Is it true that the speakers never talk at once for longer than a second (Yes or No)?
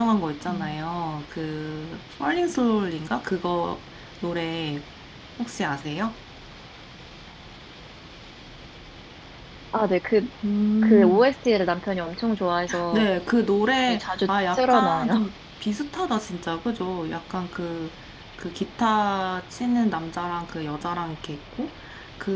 No